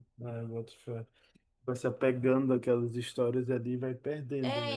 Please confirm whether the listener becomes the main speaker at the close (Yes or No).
Yes